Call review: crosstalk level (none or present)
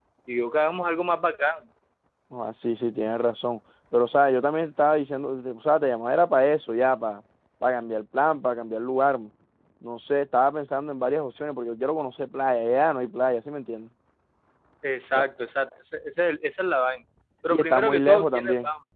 present